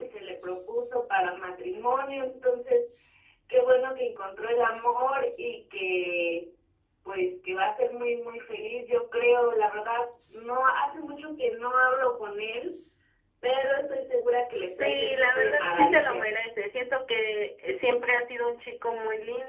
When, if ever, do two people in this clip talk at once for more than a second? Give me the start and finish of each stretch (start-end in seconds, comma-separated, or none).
14.7-16.3